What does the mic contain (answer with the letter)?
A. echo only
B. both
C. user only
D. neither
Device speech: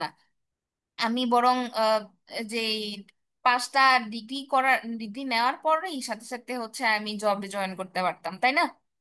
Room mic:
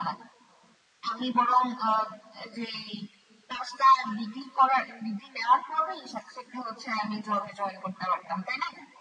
A